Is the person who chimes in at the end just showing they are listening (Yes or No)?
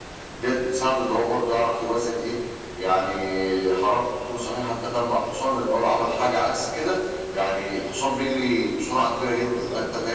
Yes